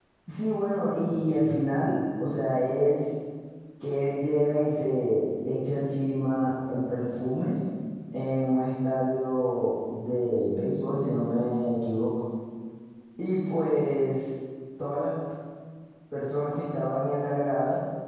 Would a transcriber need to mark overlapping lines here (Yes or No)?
No